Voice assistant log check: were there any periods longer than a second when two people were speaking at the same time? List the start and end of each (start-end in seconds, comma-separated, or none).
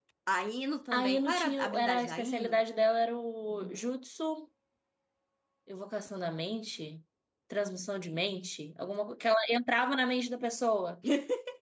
0.9-2.6